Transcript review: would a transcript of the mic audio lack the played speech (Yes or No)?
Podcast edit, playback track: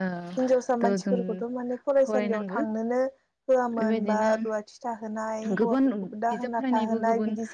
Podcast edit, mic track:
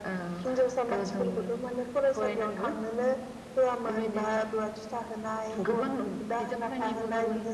No